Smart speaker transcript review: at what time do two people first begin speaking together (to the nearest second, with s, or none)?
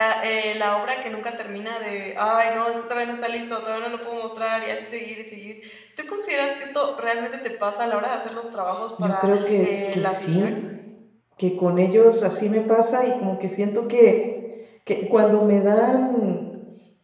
9 s